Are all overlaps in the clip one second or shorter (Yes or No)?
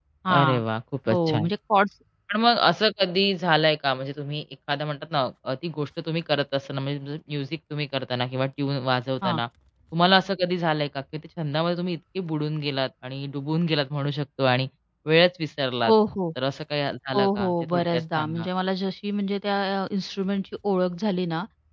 No